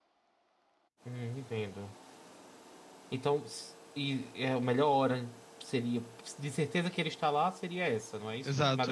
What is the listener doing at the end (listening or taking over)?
taking over